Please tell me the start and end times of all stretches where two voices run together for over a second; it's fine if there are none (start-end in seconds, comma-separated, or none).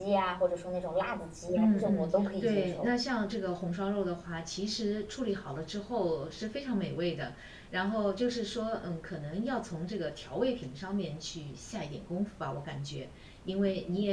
1.6-2.9